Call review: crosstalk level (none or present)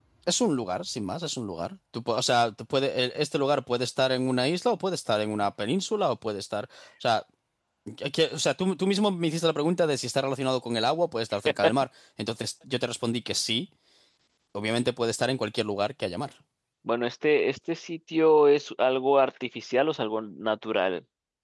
none